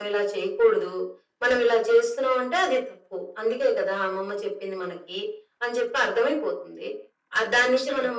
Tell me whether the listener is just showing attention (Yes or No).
Yes